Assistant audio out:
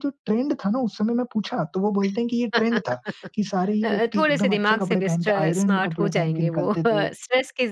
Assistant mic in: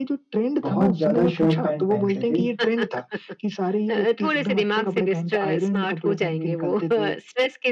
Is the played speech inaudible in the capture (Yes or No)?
No